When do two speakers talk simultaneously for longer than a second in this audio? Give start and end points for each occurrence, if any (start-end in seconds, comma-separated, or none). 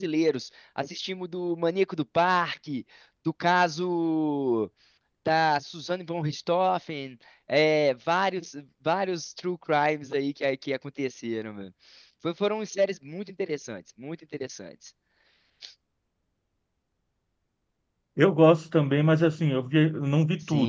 none